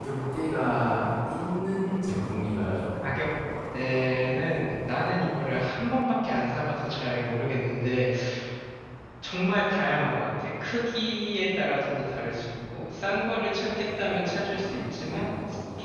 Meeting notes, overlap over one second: none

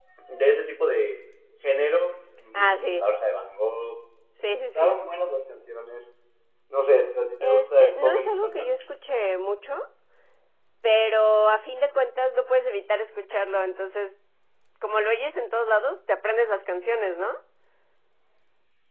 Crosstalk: present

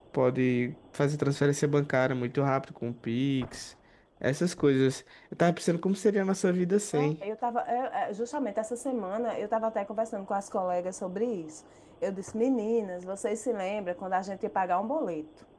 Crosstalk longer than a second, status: none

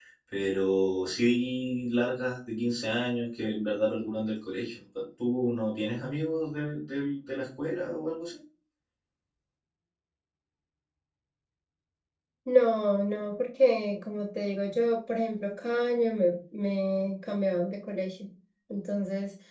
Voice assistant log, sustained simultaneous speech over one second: none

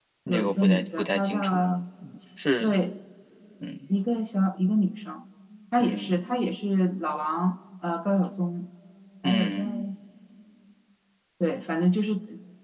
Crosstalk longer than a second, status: present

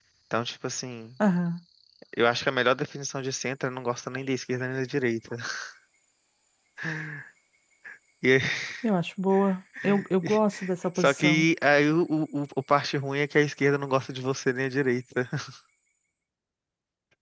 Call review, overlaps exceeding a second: none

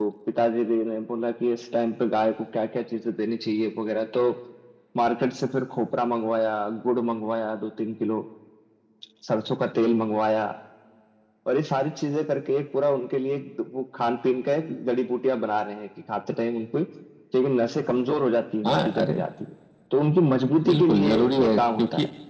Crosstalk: present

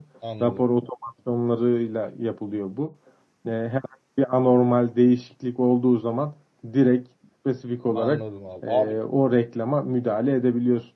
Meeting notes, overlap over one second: none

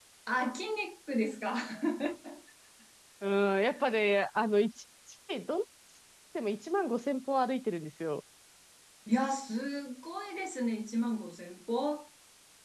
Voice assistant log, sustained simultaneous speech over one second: none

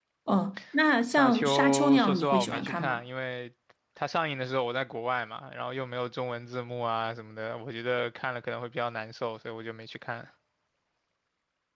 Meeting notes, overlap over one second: present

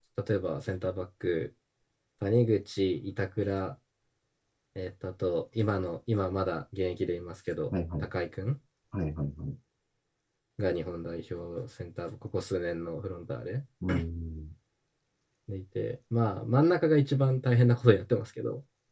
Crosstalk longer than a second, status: none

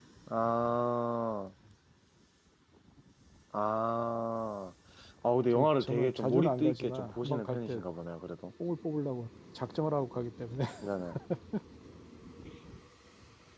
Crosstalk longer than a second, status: present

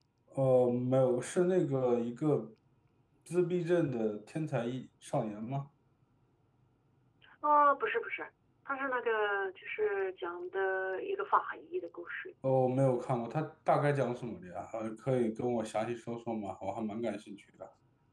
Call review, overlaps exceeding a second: none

